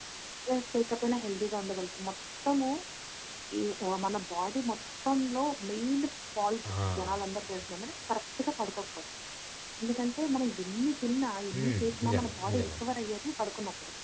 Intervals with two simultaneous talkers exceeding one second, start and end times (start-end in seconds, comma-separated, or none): 11.5-12.8